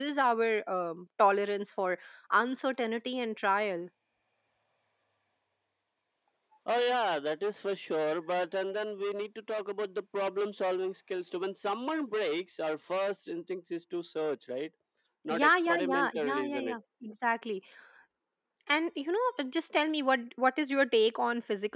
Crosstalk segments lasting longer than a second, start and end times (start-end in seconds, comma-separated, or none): 15.3-16.8